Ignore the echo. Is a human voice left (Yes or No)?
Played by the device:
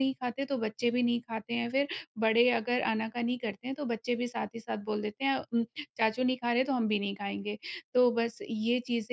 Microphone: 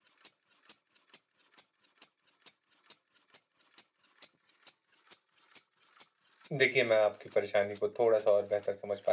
Yes